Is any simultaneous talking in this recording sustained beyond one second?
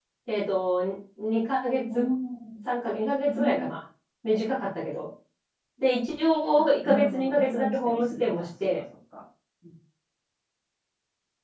Yes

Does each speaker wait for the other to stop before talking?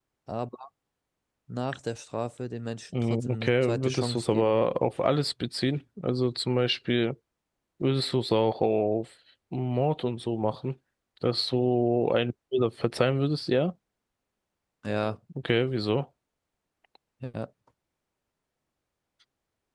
No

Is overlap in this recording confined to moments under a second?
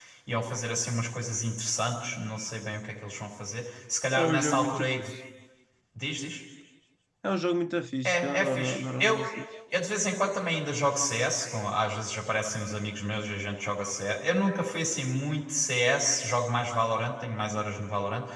No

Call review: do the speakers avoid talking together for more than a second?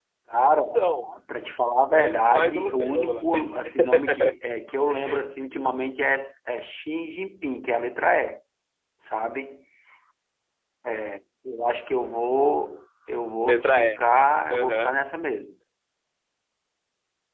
No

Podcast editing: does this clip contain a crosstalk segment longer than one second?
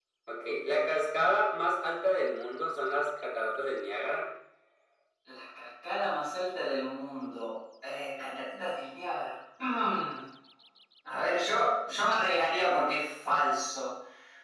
No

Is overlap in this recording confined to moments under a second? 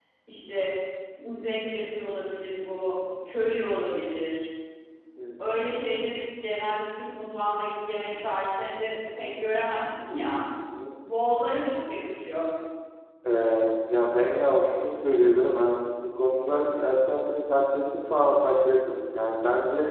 Yes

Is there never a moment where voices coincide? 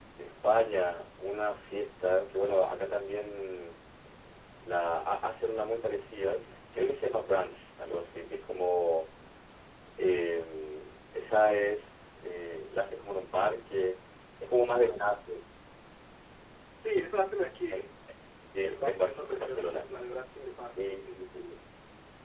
No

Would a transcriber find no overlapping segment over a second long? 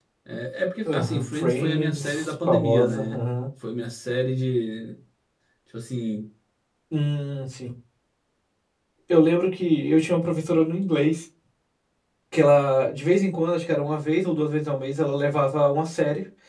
No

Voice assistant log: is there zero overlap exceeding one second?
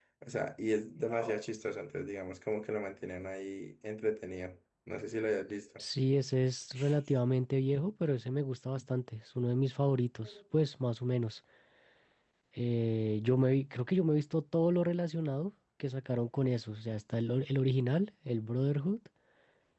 Yes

